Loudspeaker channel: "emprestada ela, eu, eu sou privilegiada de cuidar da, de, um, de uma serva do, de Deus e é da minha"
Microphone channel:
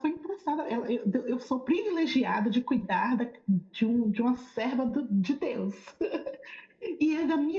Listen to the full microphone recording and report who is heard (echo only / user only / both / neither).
echo only